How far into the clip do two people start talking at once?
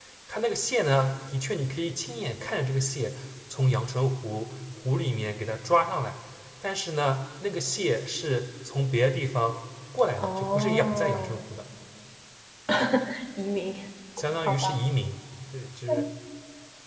10.2 s

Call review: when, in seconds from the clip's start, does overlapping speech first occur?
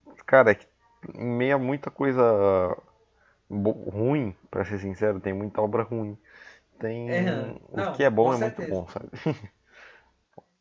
7.1 s

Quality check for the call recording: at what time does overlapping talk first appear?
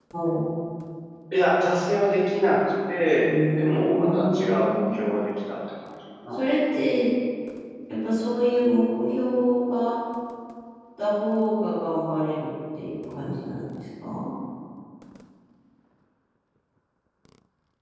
3.2 s

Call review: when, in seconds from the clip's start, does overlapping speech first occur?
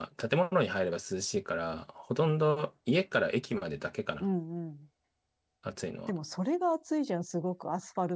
none

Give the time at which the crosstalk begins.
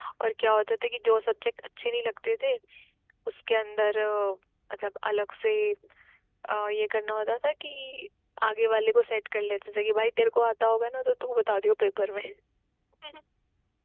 none

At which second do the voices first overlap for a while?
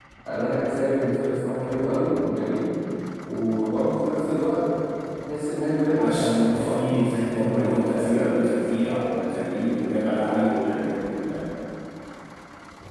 5.9 s

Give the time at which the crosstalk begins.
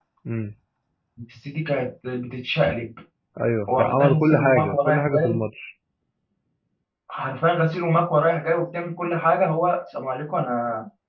3.7 s

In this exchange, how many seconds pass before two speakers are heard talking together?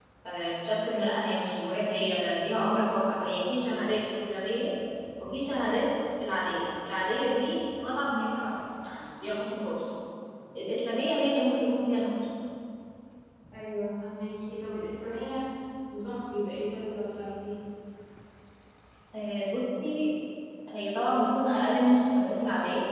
none

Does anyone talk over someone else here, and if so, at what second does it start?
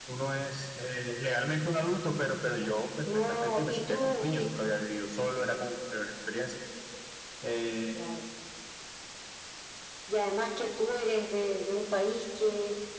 3.1 s

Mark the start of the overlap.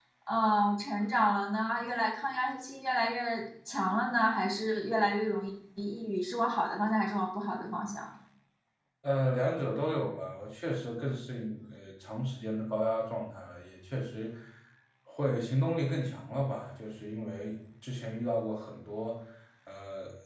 none

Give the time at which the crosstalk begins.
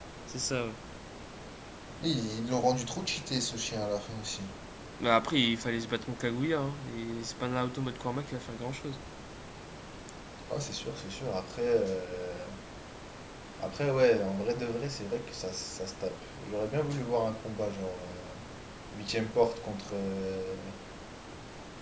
none

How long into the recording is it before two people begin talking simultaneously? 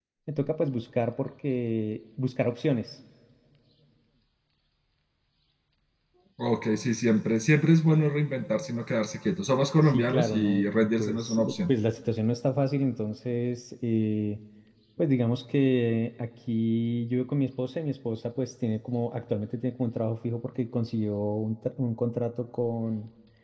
9.9 s

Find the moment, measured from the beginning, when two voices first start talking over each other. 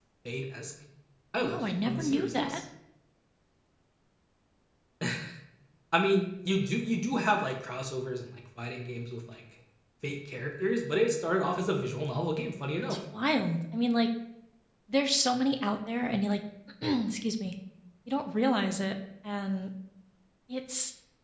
1.4 s

